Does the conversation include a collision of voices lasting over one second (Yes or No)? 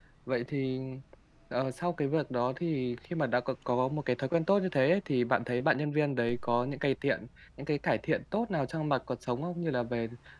No